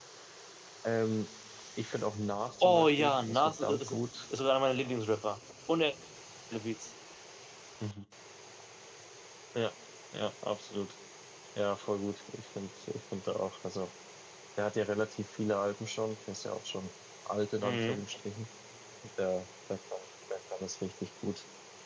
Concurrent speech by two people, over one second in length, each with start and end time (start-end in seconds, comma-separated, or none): 2.6-3.9